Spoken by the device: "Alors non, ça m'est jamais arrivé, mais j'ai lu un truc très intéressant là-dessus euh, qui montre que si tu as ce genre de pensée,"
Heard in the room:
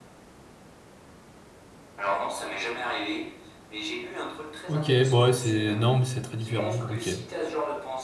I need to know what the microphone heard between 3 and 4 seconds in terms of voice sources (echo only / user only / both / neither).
echo only